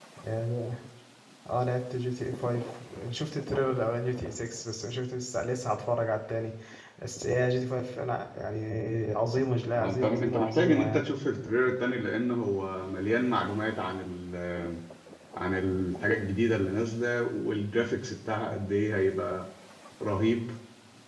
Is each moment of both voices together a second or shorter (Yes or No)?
No